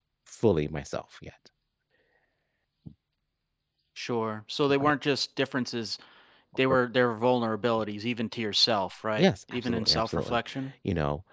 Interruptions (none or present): present